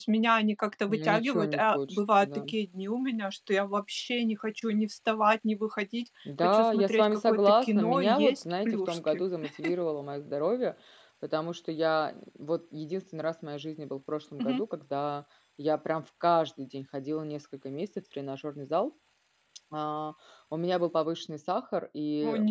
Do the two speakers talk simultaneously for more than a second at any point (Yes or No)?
Yes